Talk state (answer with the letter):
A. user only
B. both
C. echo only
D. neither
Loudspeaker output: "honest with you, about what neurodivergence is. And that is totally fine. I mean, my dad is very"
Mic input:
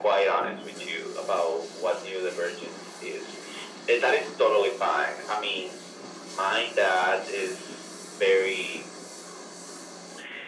C